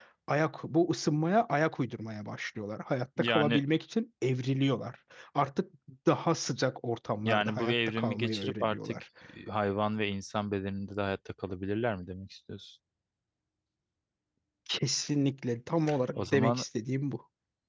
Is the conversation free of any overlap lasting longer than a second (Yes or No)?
No